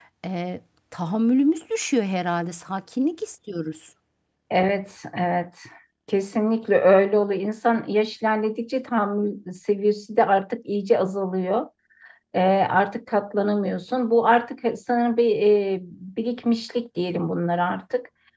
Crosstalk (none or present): none